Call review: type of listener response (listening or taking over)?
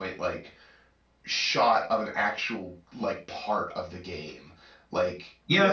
taking over